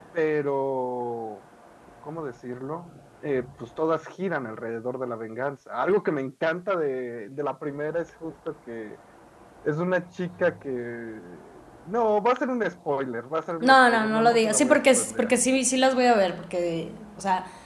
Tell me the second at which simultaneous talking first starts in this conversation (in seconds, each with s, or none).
13.6 s